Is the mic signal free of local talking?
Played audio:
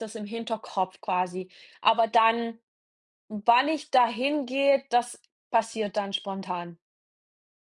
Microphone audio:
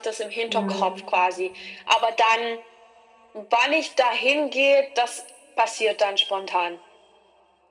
No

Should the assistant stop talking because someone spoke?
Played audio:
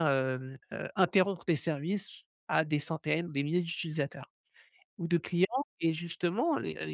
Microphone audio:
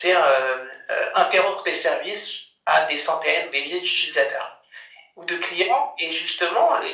No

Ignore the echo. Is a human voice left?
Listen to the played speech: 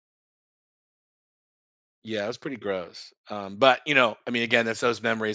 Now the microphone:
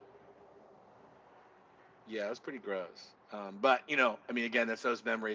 No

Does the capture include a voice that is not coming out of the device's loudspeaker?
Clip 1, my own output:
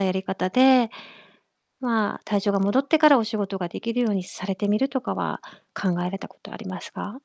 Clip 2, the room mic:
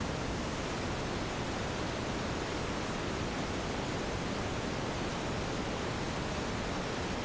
No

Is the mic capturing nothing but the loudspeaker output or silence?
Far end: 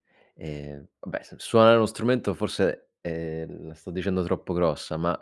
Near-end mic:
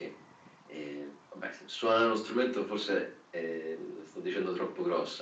Yes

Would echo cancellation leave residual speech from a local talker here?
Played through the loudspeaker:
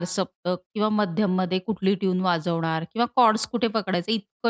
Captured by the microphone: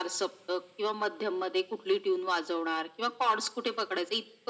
No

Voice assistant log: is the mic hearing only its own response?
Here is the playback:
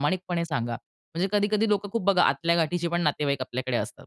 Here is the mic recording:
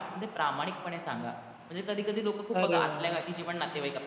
No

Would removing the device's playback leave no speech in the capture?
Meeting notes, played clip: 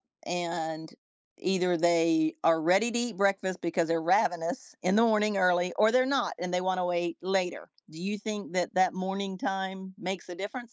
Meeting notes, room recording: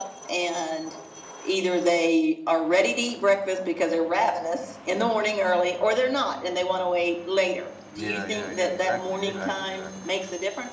No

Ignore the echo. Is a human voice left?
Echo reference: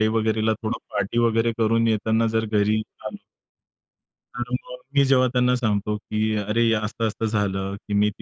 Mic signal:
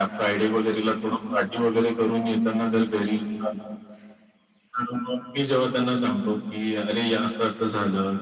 No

